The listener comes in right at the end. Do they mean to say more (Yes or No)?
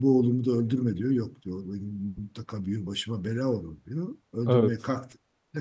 No